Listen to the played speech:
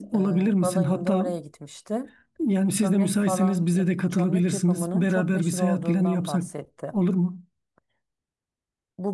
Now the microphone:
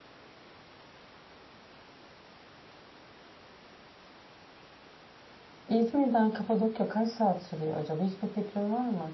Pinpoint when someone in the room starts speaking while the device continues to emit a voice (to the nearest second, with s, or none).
6 s